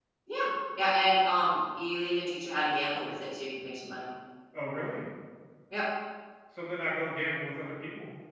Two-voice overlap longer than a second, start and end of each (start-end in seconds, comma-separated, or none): none